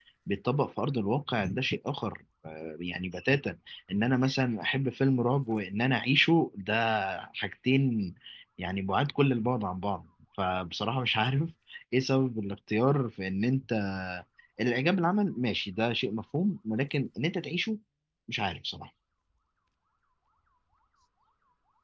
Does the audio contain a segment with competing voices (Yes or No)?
No